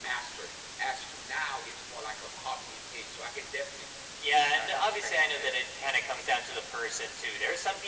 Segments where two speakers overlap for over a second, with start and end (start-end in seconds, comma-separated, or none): 4.2-5.6